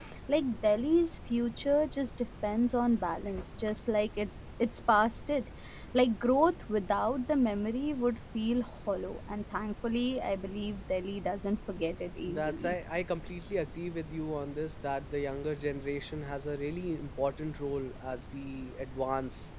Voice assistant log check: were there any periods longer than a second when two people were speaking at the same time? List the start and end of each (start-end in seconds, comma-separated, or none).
none